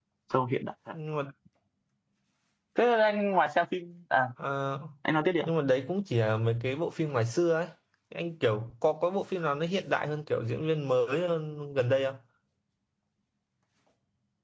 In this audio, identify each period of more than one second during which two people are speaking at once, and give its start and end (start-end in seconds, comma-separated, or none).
none